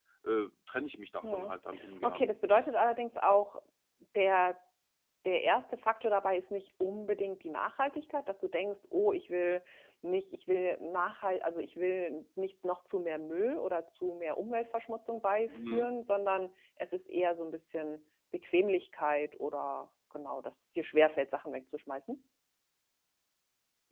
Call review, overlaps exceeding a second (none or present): none